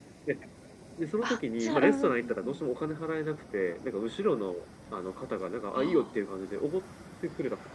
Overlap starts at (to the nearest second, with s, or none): 1 s